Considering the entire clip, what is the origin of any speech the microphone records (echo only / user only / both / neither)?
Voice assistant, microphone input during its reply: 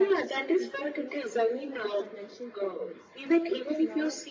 both